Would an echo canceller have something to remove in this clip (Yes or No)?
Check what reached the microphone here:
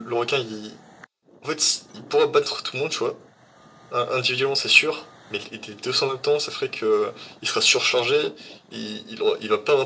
Yes